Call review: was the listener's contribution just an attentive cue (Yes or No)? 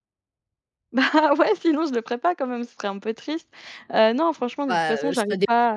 No